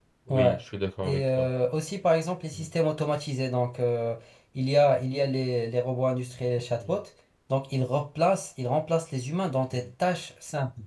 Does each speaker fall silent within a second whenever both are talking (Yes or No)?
Yes